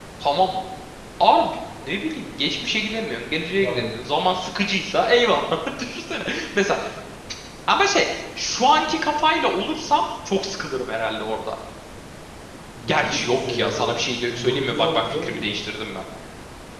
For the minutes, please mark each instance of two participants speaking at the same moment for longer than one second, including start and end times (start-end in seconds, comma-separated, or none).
12.9-15.5